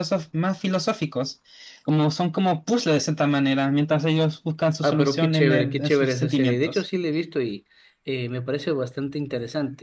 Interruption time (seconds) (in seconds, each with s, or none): 4.8 s